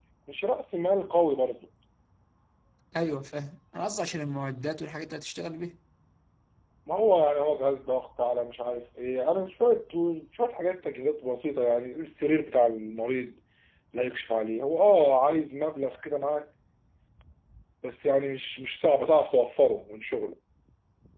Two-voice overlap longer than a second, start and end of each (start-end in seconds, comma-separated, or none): none